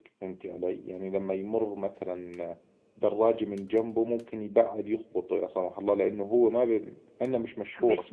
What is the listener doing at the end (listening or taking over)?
taking over